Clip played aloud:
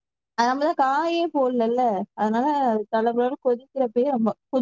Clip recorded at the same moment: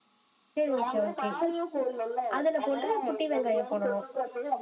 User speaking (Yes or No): Yes